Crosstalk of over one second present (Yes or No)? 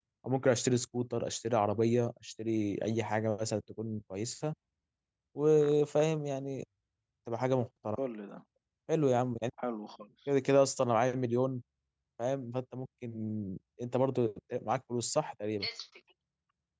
No